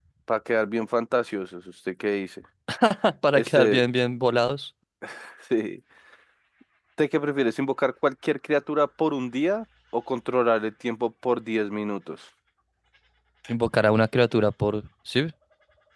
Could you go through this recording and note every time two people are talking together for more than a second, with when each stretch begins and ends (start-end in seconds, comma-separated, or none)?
none